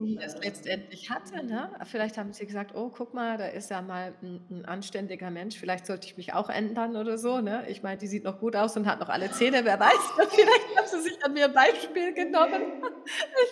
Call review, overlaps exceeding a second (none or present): none